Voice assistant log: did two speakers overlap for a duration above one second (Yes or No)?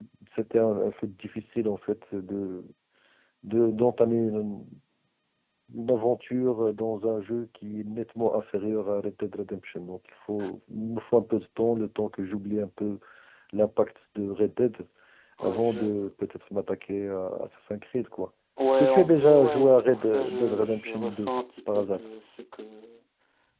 Yes